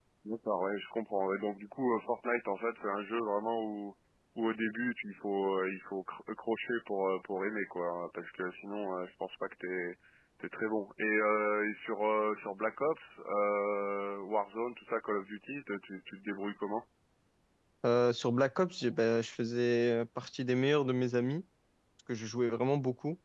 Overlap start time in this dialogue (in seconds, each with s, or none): none